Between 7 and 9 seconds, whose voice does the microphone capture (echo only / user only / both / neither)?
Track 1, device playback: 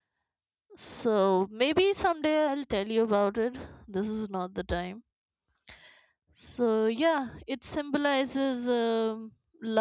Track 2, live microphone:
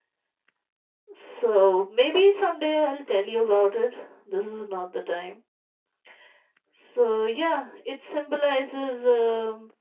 echo only